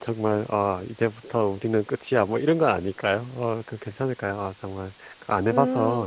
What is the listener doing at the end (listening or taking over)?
taking over